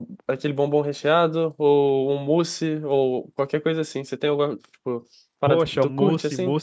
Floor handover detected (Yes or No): Yes